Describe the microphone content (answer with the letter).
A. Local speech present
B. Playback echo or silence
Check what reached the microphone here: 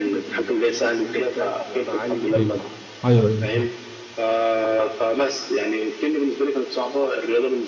A